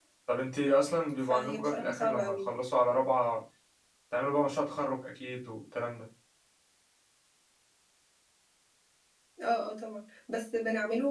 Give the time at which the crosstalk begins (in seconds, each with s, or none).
1.2 s